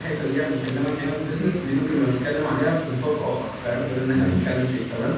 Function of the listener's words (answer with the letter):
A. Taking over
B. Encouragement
B